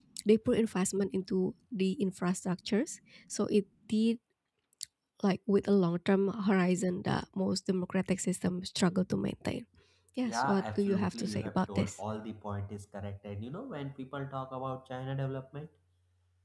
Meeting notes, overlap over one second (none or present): present